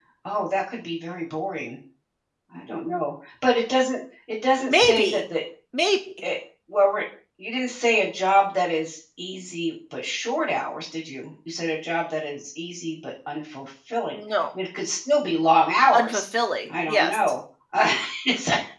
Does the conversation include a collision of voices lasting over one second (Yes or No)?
No